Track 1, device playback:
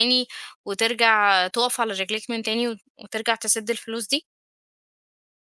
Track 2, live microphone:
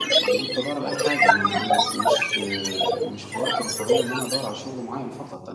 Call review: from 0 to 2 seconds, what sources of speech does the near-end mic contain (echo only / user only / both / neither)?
both